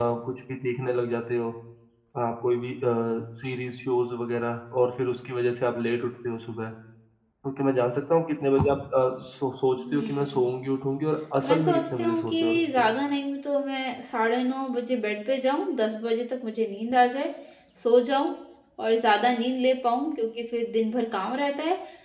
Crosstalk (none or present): present